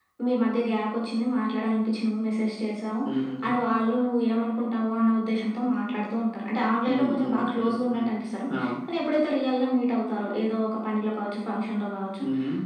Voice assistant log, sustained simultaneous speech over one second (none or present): present